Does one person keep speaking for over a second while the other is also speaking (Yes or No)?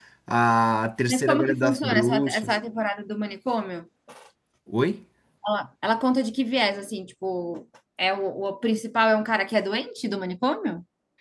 Yes